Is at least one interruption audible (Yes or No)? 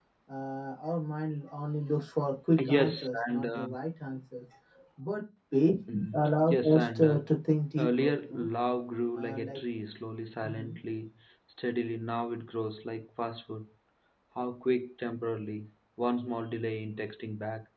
Yes